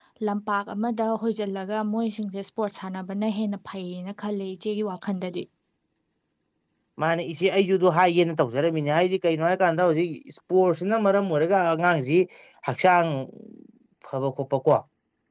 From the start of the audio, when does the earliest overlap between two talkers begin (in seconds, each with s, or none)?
none